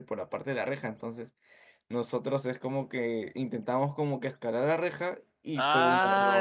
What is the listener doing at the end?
taking over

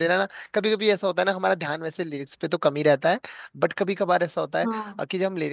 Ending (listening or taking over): listening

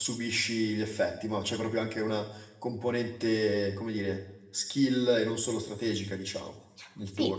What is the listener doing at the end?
taking over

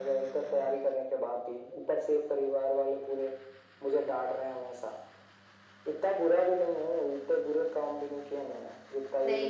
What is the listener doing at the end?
taking over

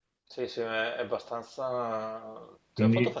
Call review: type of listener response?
listening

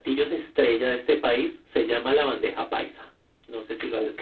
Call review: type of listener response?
taking over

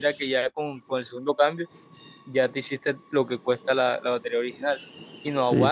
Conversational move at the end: listening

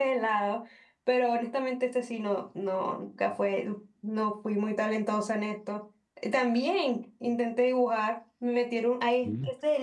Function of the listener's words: listening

